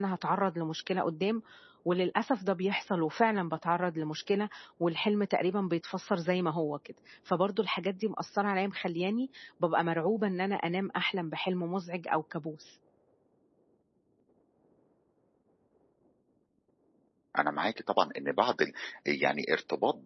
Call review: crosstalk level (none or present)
none